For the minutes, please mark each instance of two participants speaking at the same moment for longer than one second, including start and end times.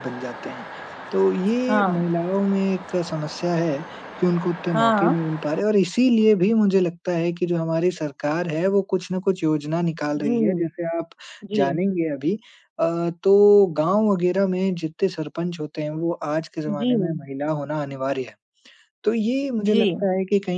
none

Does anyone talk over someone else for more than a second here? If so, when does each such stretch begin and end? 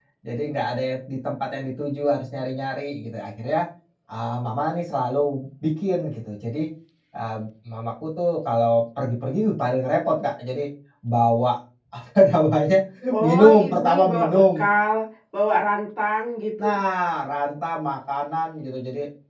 13.2-14.6

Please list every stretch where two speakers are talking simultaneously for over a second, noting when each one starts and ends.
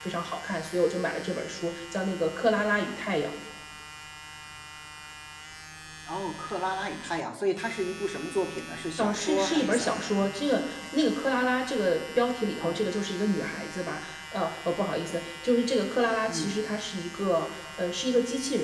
9.0-10.3

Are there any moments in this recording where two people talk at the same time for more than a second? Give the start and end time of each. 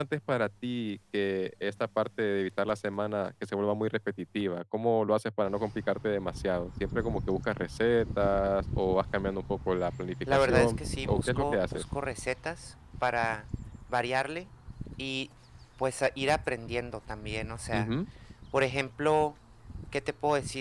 10.3-11.8

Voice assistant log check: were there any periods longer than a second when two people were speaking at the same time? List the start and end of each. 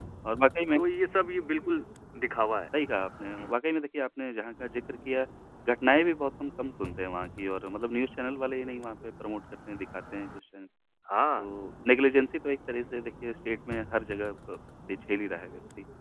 none

